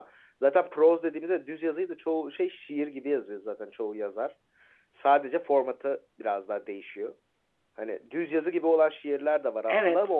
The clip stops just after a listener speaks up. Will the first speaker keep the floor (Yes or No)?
Yes